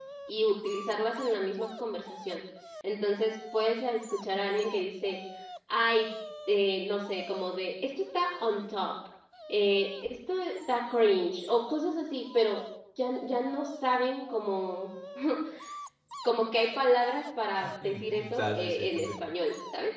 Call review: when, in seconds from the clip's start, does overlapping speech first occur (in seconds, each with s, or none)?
17.6 s